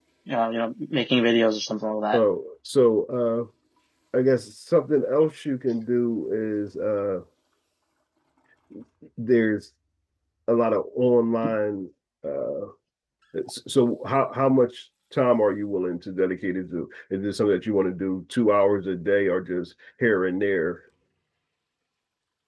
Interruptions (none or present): none